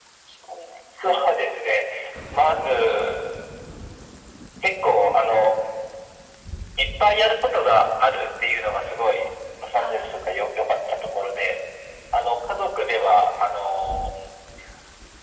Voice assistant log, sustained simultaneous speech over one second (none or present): none